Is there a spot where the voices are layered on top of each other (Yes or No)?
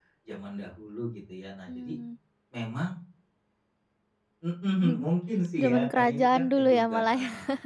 Yes